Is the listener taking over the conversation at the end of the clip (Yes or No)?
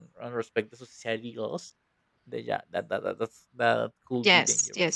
Yes